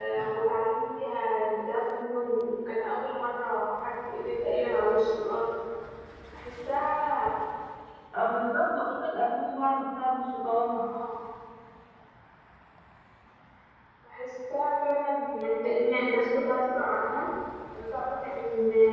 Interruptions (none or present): none